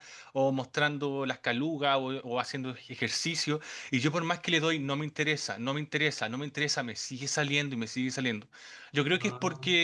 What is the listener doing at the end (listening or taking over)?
listening